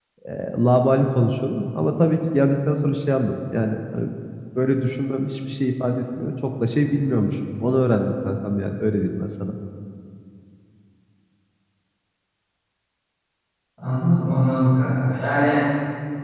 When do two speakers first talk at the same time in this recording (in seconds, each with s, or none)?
none